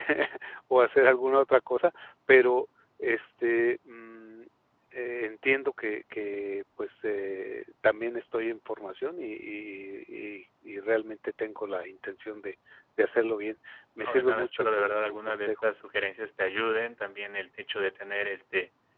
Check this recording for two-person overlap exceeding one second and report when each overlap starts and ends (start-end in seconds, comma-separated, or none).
14.0-15.5